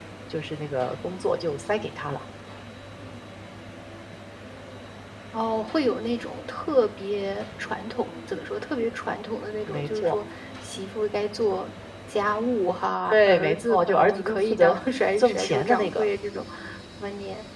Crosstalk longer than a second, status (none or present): present